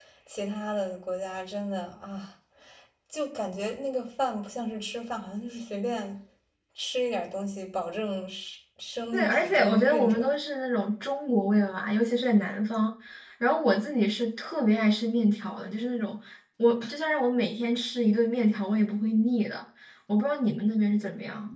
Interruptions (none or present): present